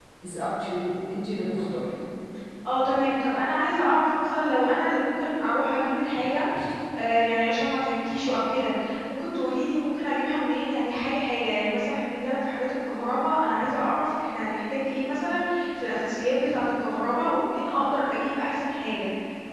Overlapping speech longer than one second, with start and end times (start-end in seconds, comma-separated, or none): none